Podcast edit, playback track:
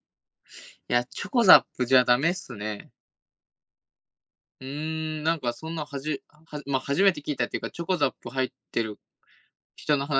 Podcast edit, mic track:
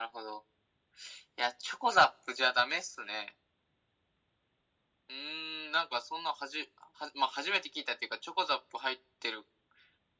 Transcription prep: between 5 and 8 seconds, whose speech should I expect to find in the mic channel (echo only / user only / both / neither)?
echo only